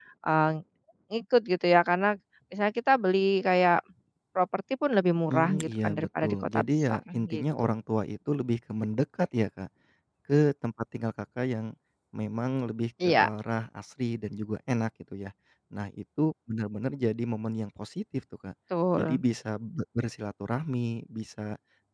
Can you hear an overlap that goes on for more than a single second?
Yes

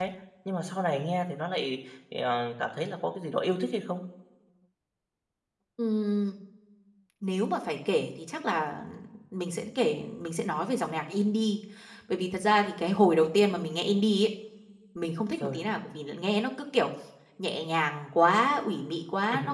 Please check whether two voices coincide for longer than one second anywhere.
No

